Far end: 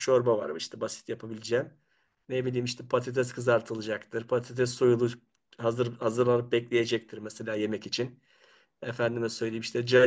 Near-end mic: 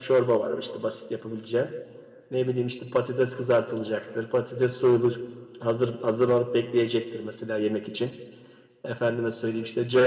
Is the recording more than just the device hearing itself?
No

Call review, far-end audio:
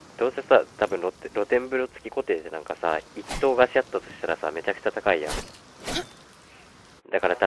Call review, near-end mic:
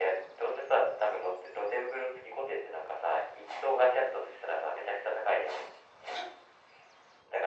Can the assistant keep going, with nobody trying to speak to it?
Yes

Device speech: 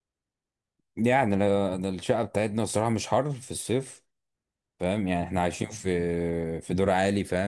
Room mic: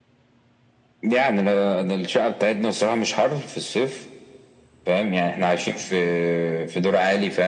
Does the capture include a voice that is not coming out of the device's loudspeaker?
No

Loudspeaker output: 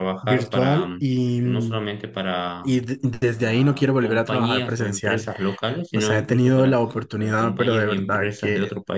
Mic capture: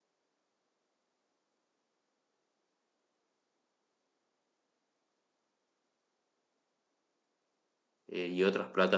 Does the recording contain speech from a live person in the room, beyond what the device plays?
Yes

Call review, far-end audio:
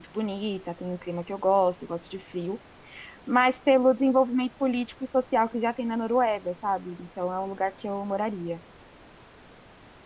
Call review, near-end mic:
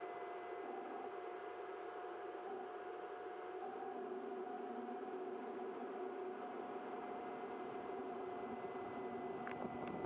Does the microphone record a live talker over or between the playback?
No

